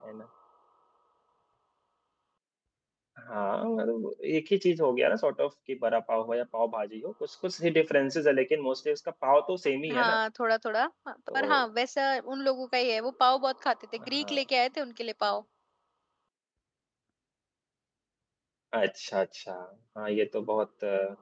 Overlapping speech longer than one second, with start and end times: none

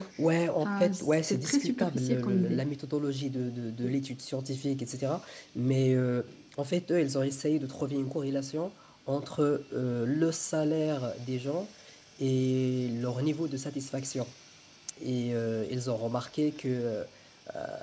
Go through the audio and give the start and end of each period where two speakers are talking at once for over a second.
0.6-2.6

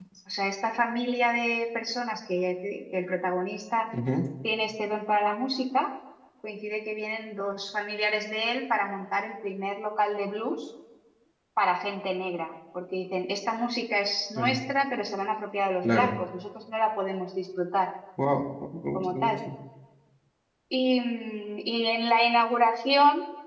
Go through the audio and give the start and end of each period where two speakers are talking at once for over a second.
none

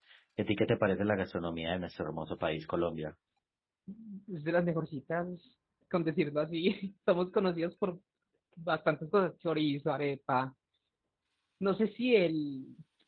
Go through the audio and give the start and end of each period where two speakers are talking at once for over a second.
none

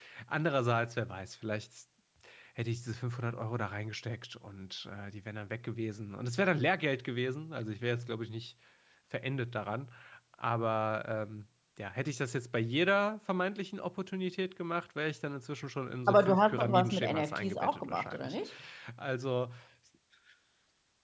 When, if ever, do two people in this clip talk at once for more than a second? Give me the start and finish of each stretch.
16.1-18.4

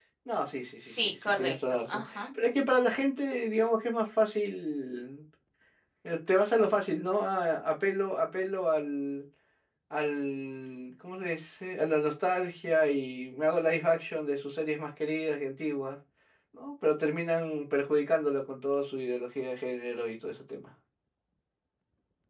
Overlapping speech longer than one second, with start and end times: 0.8-2.3

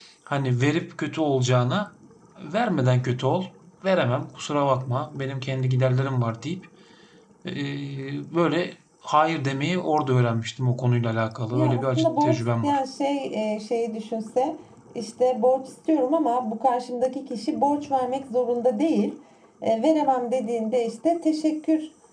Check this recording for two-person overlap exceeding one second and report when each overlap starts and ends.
11.5-12.8

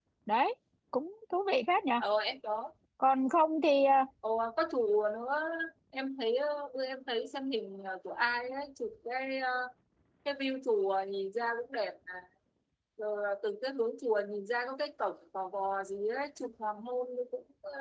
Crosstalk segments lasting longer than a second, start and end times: none

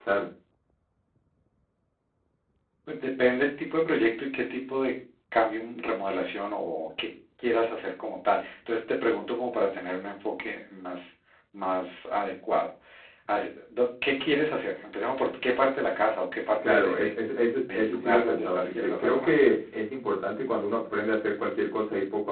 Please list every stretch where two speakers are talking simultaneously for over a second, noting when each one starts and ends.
17.6-19.3

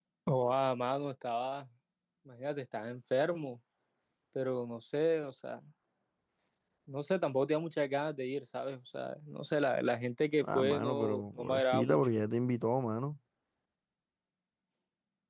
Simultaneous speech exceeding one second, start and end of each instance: 10.4-12.1

